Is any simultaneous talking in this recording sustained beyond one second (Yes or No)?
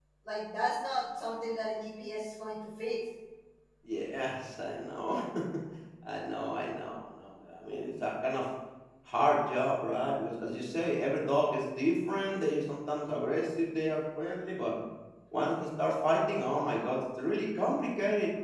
No